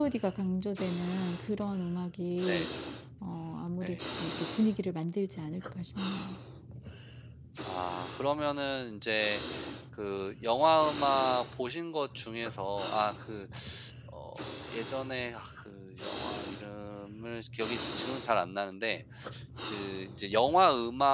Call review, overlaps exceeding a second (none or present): none